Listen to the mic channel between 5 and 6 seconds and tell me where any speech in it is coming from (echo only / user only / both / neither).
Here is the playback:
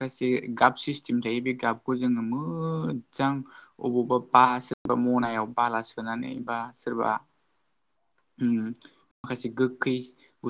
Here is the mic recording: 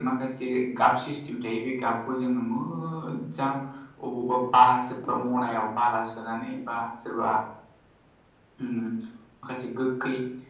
echo only